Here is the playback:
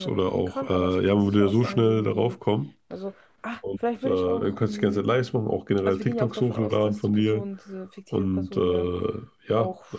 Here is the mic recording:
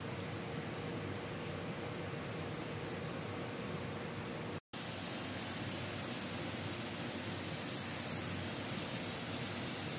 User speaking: No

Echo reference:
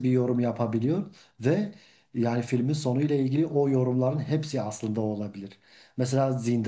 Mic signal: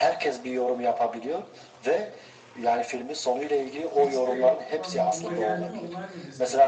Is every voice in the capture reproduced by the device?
No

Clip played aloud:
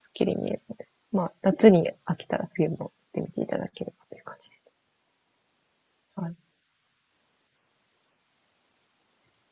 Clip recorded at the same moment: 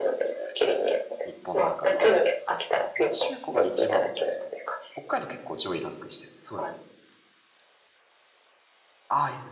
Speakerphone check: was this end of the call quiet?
No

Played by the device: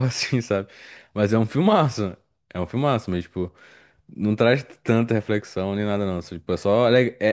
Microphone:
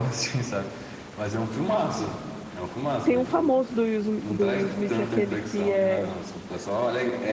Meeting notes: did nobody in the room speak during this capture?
No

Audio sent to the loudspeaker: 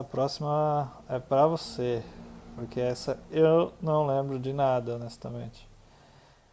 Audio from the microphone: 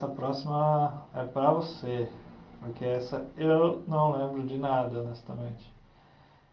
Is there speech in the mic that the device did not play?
No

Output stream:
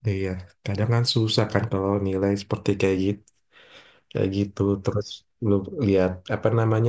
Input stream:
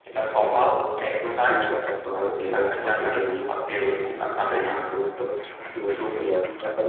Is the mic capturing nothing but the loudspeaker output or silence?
No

